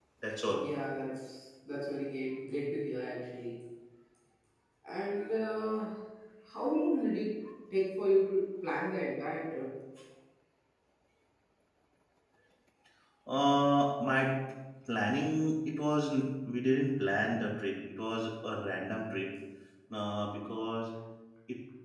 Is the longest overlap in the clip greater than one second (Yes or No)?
No